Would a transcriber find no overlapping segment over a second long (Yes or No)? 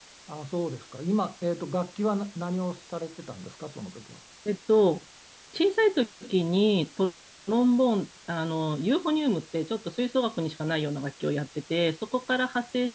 Yes